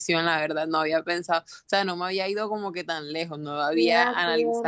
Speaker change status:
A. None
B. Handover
B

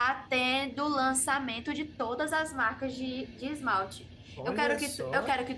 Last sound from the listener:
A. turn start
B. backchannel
B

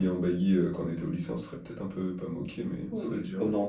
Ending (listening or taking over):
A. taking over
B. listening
A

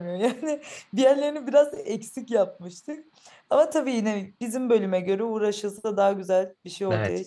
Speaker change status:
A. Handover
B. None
A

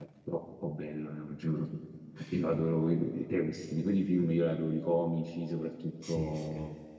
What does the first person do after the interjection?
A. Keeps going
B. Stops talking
A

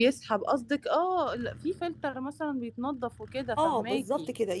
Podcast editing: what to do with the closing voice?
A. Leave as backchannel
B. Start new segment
B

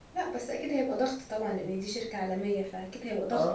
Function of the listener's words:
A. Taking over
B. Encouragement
A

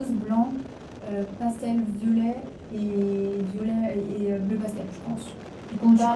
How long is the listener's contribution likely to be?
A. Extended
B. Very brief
A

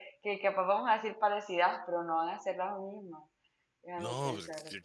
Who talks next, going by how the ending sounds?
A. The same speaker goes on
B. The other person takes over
B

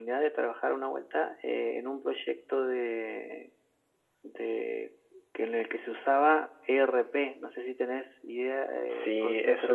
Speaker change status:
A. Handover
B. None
A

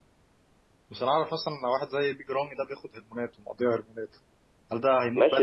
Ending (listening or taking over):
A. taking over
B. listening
A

